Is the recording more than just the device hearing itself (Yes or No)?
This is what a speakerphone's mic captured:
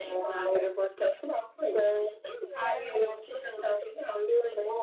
Yes